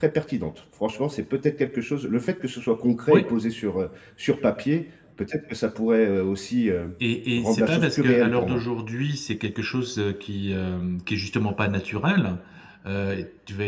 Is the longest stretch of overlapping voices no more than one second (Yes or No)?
No